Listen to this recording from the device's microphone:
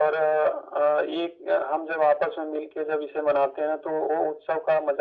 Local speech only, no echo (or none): none